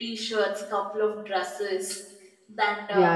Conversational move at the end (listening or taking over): taking over